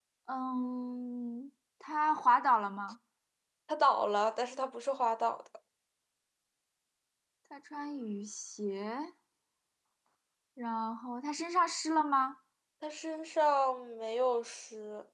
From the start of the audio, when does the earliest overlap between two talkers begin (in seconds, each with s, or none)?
none